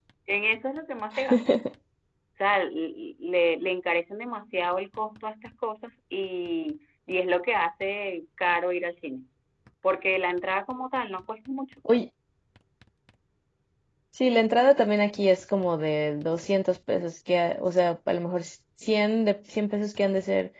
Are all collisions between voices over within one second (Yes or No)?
Yes